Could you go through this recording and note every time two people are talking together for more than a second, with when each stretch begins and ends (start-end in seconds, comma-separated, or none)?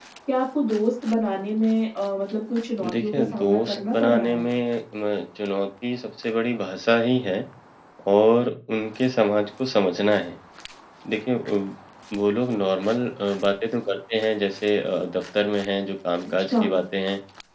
2.9-4.5